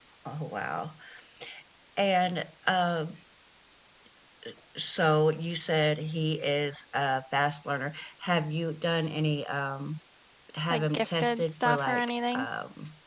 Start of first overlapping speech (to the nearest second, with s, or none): 11 s